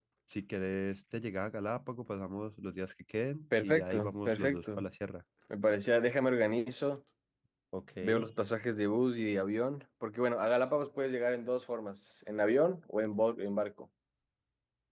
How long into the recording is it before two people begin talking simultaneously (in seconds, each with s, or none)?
3.6 s